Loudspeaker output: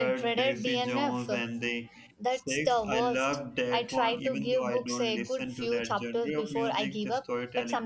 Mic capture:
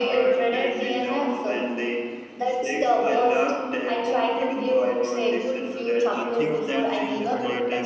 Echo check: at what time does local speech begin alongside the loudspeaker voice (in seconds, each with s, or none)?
6.1 s